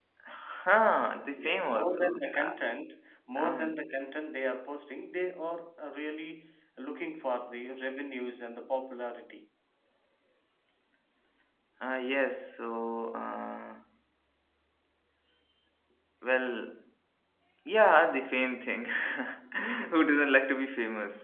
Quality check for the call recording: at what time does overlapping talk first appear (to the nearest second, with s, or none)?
1 s